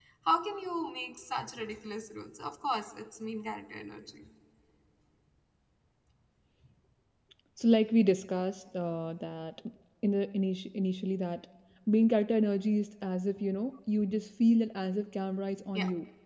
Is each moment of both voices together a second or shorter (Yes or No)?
Yes